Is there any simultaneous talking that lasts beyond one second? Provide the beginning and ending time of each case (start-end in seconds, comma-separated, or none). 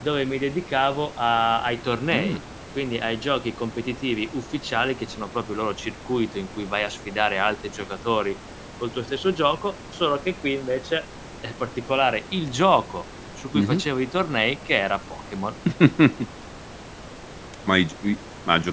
none